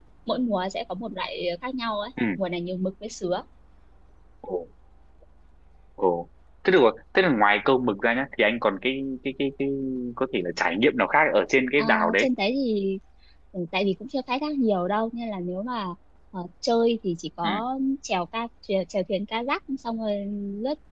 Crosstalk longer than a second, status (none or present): none